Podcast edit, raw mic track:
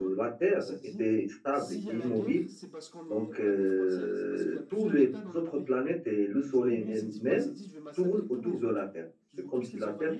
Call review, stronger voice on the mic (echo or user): user